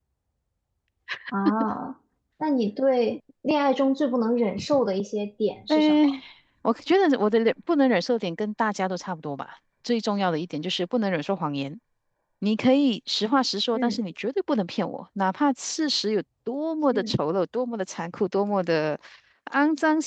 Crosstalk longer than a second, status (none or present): none